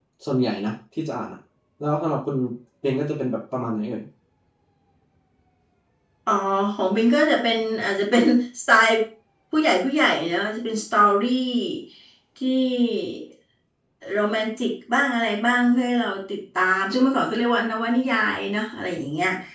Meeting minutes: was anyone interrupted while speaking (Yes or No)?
No